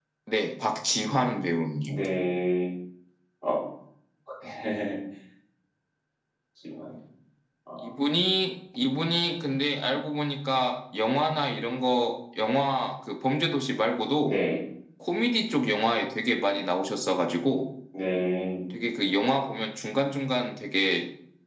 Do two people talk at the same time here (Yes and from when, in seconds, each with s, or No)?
No